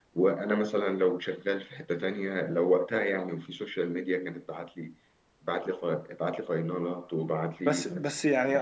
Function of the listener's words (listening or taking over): taking over